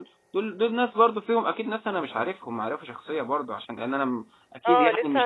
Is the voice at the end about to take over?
Yes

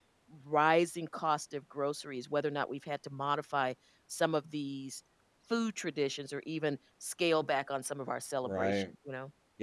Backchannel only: No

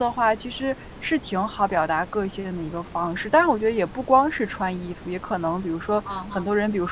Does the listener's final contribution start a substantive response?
No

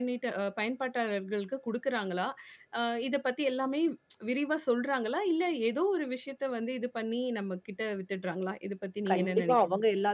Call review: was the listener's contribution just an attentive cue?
No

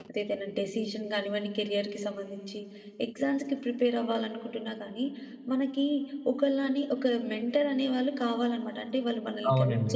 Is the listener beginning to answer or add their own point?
Yes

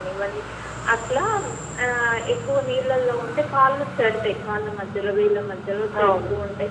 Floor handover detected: No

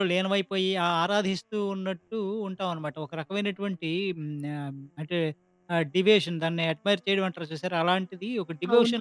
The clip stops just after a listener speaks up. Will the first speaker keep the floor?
No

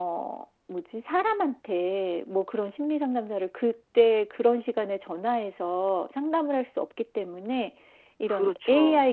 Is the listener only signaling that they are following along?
Yes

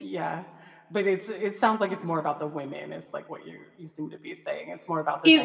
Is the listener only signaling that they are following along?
No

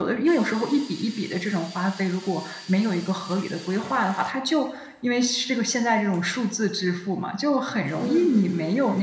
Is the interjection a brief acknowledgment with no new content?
Yes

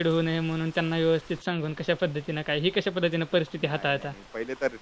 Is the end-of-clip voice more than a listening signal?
Yes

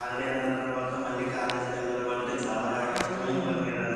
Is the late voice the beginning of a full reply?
Yes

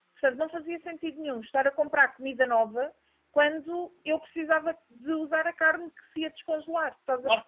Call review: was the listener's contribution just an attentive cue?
No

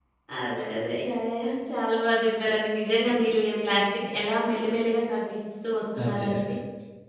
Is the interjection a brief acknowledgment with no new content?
Yes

